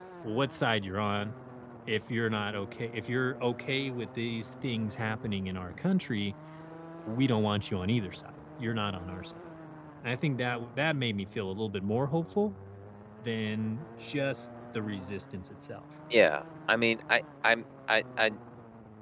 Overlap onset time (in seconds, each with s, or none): none